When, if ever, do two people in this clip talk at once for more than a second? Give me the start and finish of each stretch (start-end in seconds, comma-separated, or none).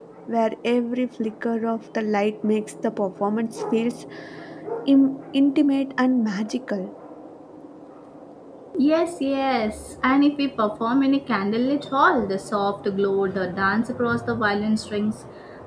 none